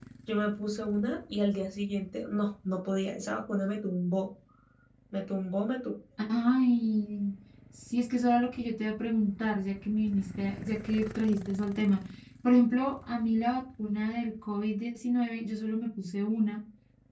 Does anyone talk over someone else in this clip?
No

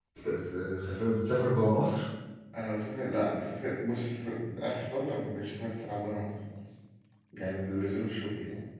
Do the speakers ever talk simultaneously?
No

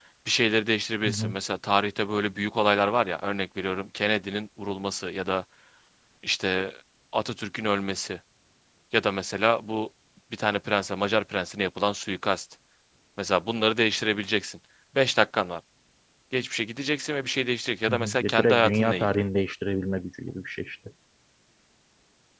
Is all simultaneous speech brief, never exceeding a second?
No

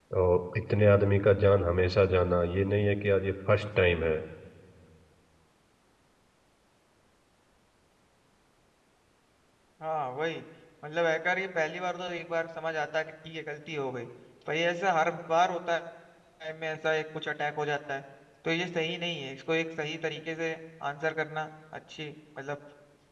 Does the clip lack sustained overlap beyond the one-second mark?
Yes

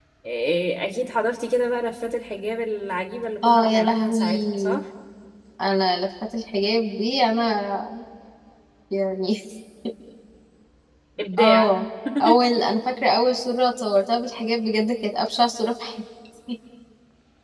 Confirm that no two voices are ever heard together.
No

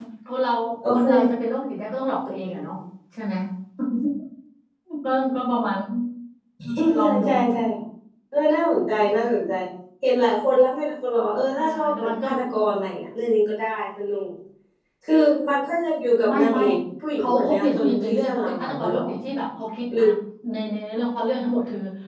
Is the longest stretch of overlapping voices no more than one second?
No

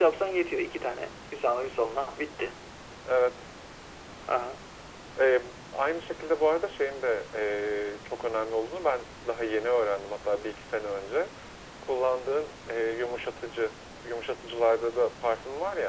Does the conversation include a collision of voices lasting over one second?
No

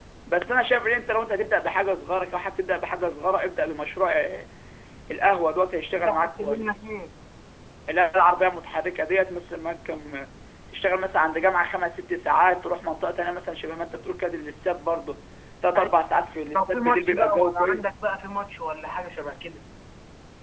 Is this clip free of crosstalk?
No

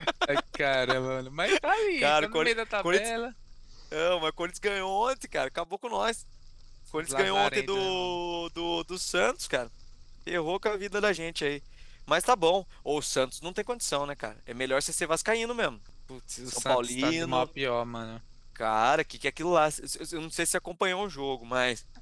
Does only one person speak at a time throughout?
No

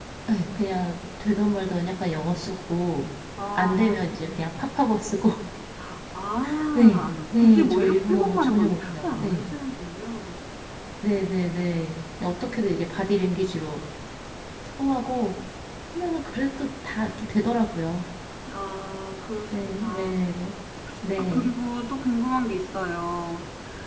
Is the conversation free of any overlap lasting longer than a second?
No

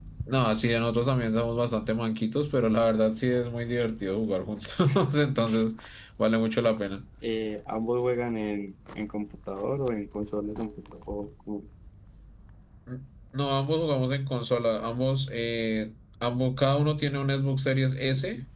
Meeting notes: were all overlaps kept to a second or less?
Yes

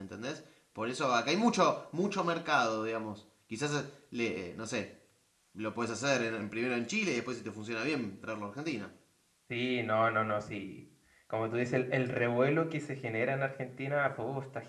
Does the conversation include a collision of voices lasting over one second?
No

